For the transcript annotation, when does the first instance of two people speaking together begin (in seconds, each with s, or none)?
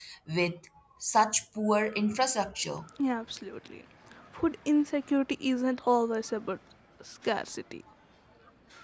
none